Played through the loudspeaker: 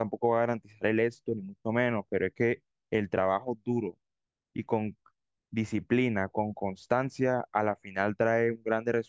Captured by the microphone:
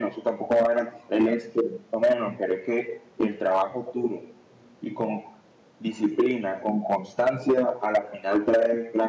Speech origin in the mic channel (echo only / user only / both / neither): echo only